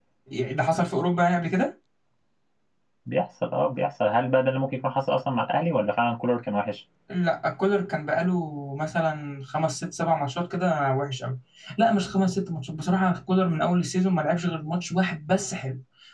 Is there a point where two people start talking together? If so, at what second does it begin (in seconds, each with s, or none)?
none